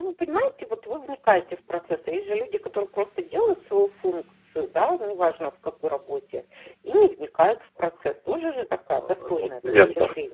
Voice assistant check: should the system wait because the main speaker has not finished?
No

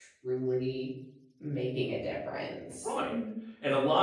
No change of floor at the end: No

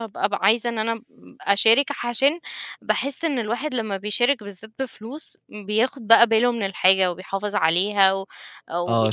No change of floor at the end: No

